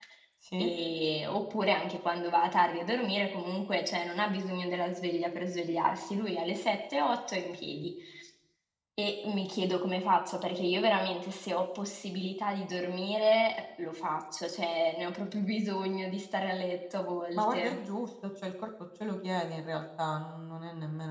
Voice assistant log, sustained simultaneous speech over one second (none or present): none